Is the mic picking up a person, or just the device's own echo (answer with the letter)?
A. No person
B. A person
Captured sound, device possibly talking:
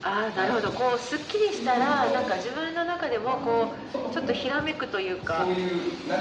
B